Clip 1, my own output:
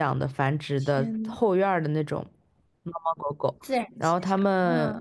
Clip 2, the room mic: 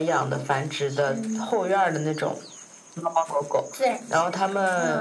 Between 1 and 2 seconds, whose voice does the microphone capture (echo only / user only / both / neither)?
echo only